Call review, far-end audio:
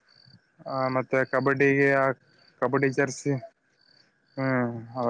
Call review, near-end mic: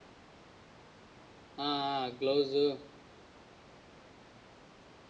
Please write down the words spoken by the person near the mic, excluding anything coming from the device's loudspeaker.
ಹಾ ಹ ಗ್ಲೌಸು,

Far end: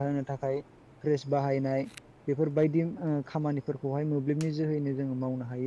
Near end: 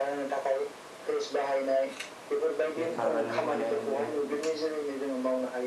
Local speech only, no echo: बे टारबाइननिफ्राय माने बिदिनो

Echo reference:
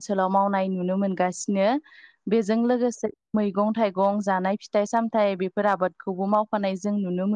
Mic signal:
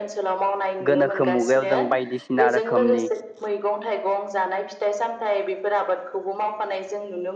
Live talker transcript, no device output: गोनोखो मुगायाव जों बायदिसिना रोखोमनि

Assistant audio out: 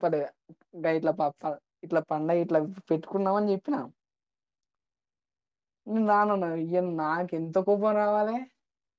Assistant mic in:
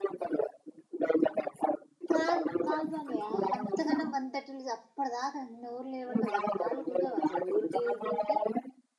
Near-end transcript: కాదు కాలు బంయ అంతకనం వంతట్ అప్పటి దాకా అన్ని ఊర్లు నిలబడతారు కదా కాళ్ళు కొంచెం అసలు ఊరికి ఊరికి ఊరికి

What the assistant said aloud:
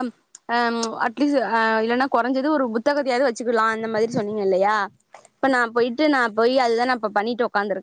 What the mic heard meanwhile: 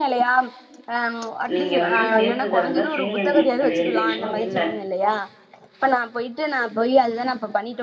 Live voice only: நீங்க வந்து சேந்துக்கிறதாந்தா சேந்துகுங்க அது எந்த இஷ்யுவு இல்ல

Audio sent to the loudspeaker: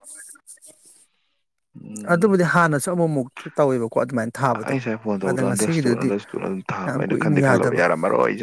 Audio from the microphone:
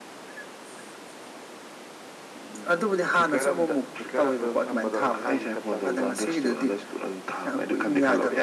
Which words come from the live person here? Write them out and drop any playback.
ꯐꯤꯀꯔ ꯑꯝꯇ ꯐꯤꯀꯔ ꯑꯝꯇ ꯑꯗꯨꯝ ꯊꯝꯕꯗꯣꯁ ꯏꯁꯥꯒꯤ ꯆꯞ ꯆꯥꯕꯤꯗ

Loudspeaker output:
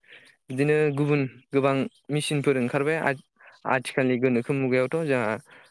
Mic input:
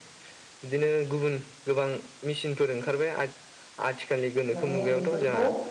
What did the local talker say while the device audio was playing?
माने बेफोरखौ

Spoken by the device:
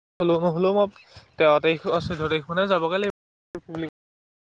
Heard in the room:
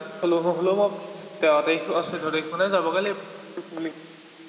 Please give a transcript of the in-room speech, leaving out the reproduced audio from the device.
none

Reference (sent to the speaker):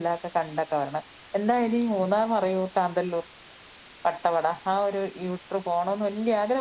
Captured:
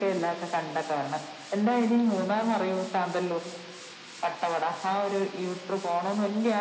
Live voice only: none

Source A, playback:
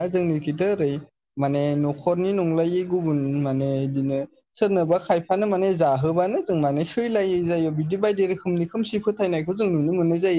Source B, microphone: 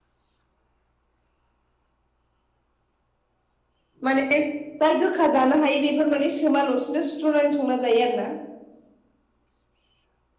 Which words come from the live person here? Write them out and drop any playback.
माने जाय गोखा जानो हायो बेफोर माने सोमााल'सिनो सुस्र'नानै संना जायो आरोना।

